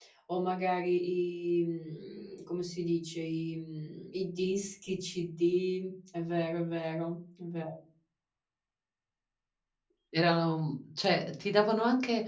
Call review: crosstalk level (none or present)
none